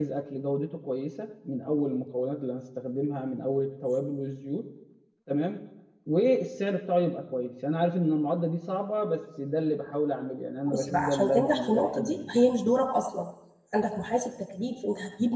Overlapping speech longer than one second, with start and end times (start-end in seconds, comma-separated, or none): 10.7-12.3